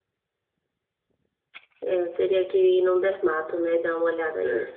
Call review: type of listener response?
taking over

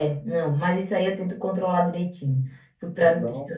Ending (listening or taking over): taking over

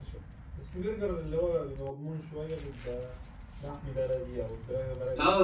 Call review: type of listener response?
taking over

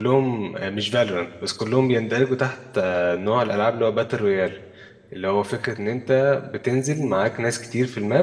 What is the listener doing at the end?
listening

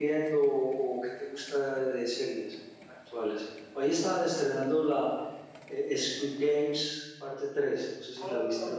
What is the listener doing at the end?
taking over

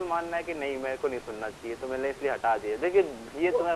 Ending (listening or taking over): listening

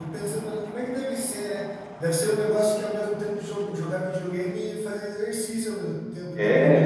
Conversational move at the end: taking over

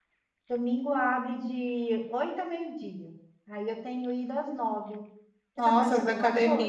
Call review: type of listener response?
taking over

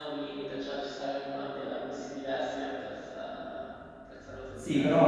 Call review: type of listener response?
taking over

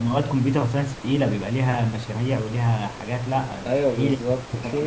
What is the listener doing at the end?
taking over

